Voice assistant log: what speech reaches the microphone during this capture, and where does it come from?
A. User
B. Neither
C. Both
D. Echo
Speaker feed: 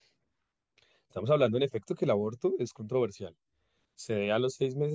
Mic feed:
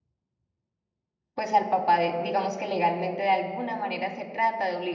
A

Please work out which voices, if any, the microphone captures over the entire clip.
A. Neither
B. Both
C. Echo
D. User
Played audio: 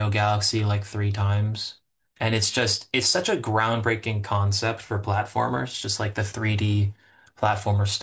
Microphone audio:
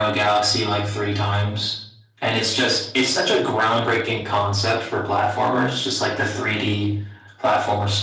C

